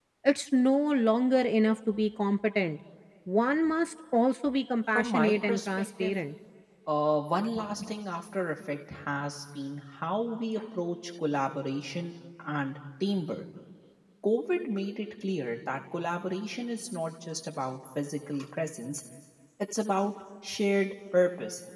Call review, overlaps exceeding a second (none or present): present